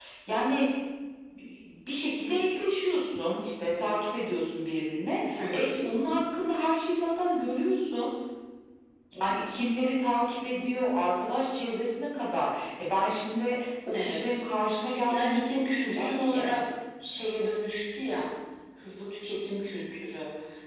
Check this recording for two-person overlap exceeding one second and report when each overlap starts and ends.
15.1-16.4

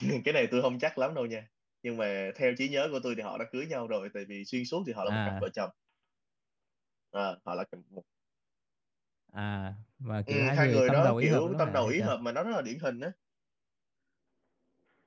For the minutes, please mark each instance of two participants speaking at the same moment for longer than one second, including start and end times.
10.3-12.2

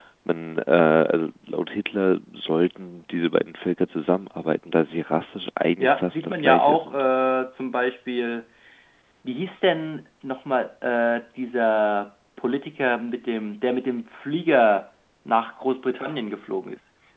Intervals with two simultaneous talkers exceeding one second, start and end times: 5.8-7.0

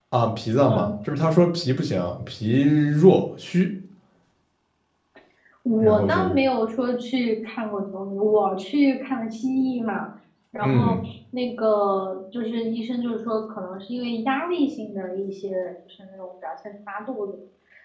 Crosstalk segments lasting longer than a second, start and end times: none

